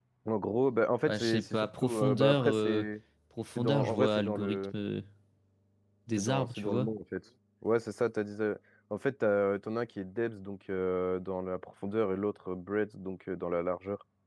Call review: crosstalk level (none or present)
present